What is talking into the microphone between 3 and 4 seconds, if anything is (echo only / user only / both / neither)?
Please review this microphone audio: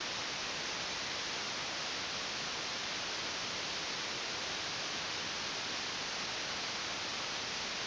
neither